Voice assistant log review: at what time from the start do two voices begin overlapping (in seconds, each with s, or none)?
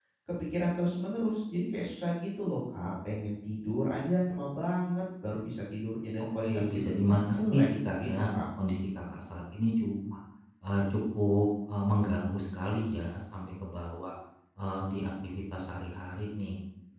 6.4 s